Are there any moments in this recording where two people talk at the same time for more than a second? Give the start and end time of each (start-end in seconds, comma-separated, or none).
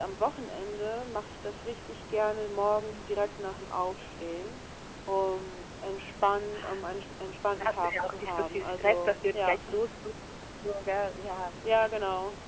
7.6-9.6